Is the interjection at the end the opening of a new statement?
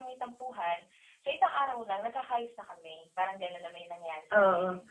Yes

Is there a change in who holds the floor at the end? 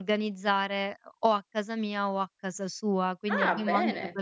No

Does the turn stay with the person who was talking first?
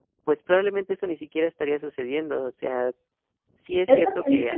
No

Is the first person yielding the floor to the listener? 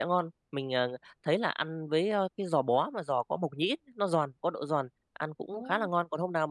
No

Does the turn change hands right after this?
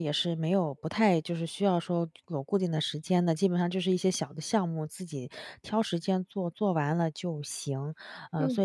No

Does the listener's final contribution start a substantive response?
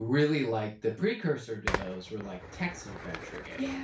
No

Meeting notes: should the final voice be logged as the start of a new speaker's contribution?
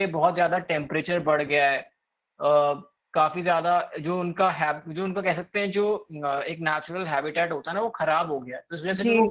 Yes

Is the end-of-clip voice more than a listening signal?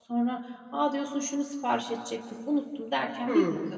Yes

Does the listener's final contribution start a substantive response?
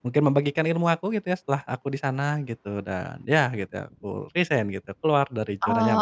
Yes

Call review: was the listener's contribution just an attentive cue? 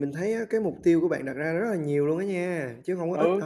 No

